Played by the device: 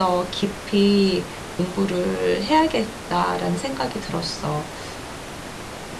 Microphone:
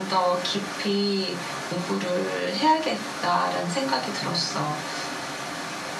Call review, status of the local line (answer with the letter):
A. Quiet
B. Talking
A